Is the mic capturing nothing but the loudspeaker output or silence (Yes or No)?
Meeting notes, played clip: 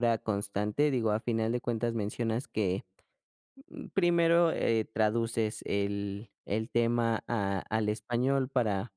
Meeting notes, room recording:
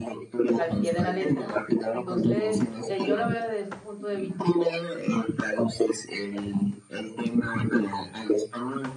No